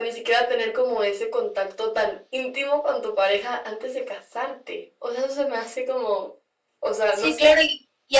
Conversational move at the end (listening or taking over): taking over